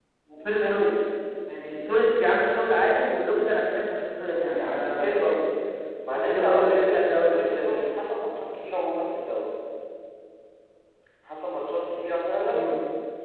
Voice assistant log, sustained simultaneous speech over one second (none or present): present